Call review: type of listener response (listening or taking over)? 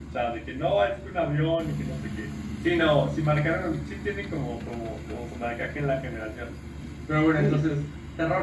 listening